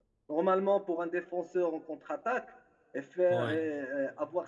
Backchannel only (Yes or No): Yes